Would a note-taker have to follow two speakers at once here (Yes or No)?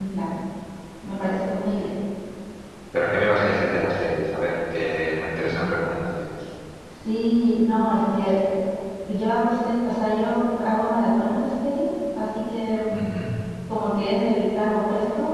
No